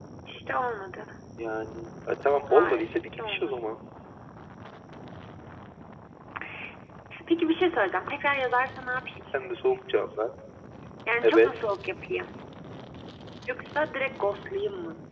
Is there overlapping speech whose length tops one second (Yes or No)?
Yes